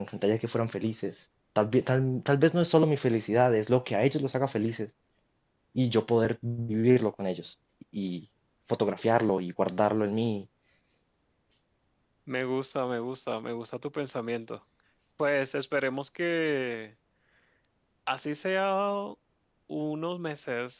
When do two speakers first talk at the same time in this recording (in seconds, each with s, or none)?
none